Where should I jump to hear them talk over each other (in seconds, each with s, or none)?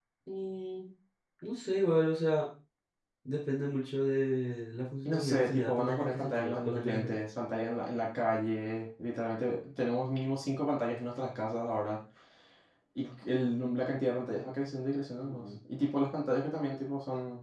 5.0 s